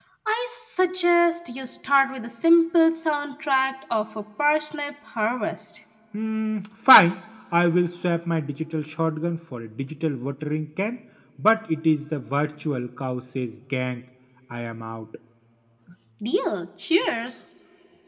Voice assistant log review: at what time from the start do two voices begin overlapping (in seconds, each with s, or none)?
none